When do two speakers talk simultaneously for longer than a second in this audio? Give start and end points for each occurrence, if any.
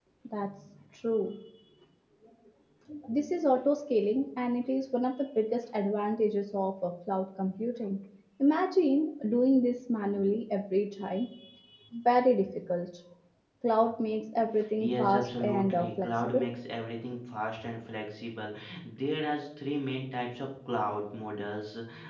14.8-16.5

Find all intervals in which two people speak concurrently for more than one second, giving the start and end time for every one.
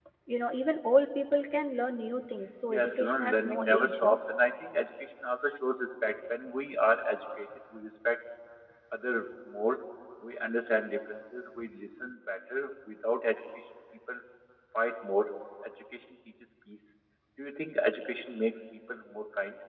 2.7-4.2

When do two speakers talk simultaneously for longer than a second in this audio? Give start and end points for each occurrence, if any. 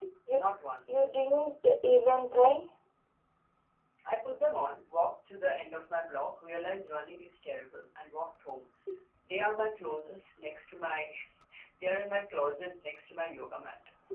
none

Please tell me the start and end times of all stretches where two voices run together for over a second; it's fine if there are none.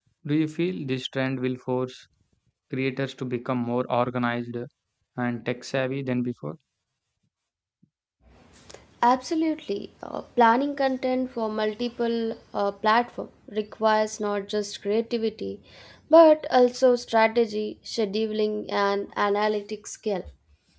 none

